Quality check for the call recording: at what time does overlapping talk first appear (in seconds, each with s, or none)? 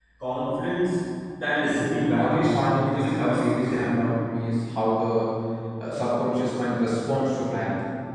1.6 s